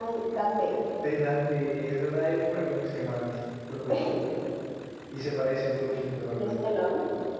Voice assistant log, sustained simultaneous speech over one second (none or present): none